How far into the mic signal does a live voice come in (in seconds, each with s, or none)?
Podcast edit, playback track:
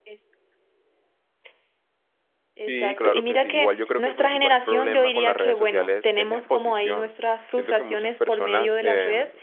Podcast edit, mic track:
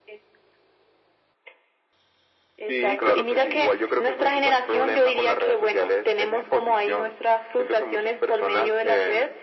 none